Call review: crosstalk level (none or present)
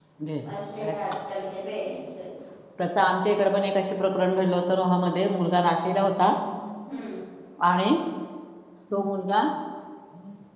none